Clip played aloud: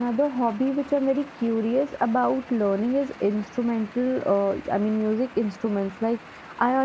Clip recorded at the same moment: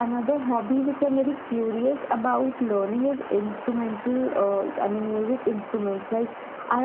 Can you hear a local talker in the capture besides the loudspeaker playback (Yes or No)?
No